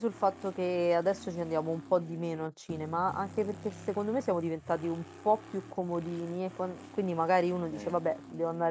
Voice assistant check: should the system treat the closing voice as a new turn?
No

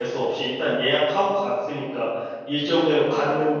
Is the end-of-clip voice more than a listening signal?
No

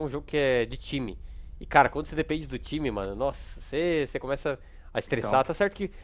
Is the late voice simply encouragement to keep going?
Yes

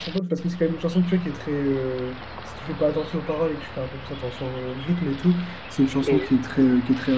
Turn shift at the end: No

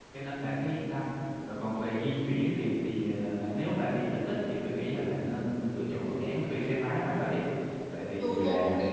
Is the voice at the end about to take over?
Yes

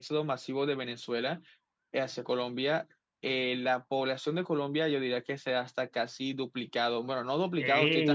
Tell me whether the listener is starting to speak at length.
Yes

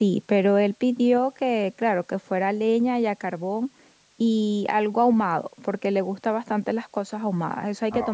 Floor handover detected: Yes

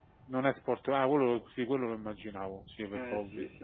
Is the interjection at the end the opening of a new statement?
Yes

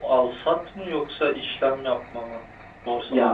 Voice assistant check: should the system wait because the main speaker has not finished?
No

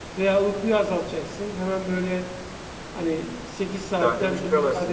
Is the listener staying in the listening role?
Yes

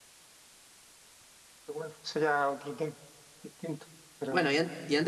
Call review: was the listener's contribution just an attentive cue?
No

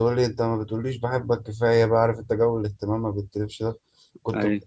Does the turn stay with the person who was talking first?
Yes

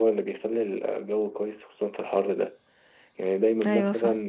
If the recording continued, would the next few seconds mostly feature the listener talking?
No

